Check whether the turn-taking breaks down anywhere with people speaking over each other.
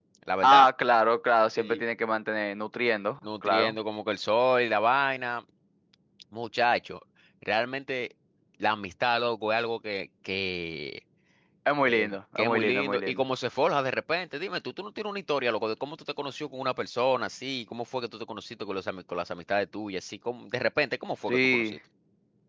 Yes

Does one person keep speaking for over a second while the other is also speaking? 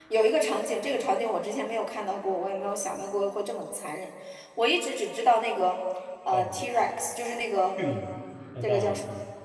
No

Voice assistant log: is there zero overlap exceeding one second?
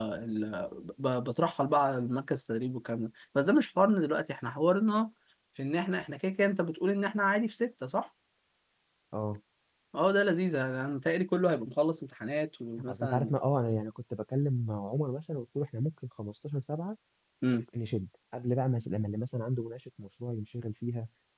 Yes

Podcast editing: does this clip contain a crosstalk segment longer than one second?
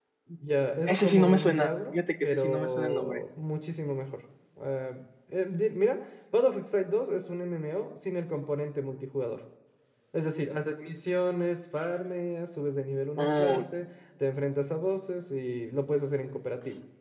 Yes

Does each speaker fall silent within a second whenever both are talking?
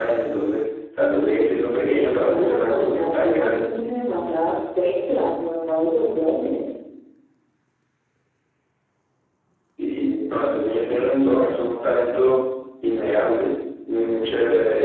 No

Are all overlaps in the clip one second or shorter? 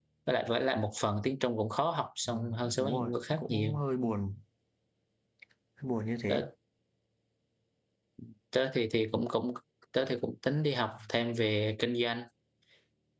No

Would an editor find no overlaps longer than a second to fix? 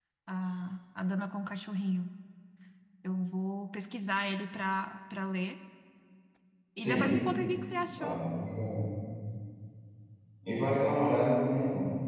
Yes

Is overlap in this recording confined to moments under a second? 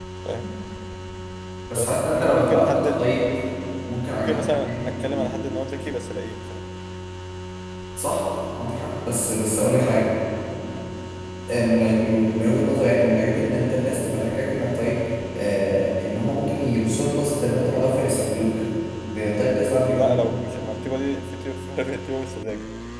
No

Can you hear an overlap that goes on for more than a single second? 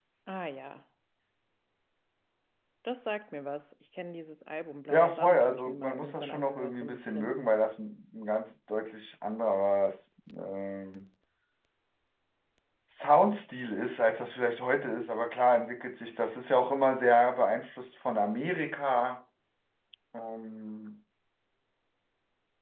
Yes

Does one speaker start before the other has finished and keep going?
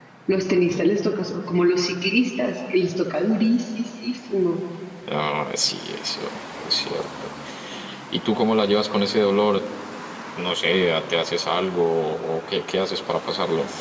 No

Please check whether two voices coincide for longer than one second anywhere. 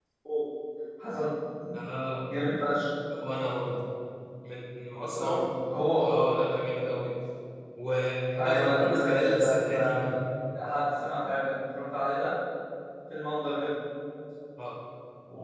Yes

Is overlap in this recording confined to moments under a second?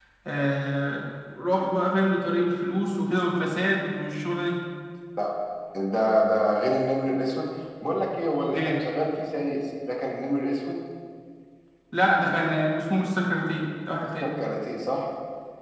Yes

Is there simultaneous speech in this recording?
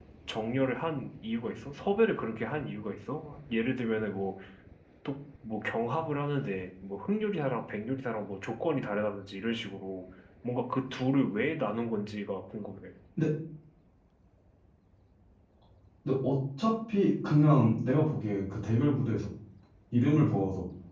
No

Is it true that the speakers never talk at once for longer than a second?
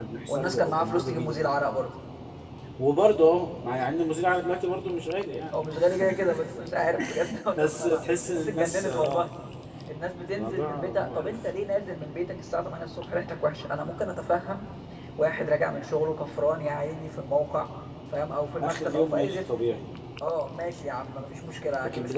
No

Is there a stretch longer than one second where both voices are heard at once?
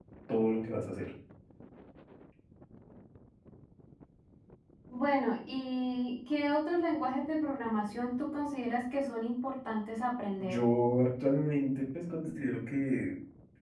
No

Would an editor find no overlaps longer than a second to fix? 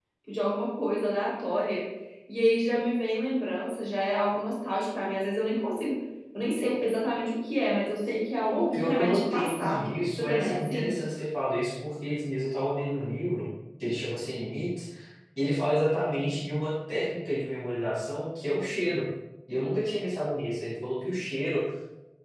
No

